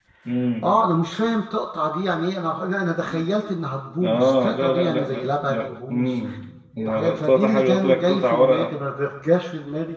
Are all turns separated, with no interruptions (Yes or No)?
No